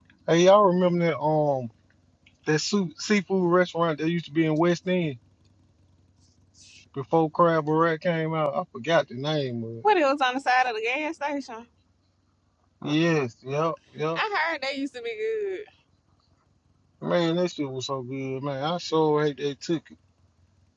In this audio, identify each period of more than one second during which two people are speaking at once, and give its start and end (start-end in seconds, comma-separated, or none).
none